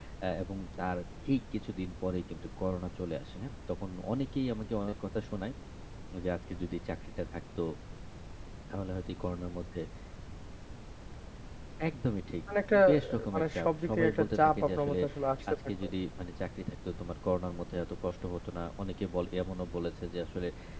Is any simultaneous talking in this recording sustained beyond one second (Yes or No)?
Yes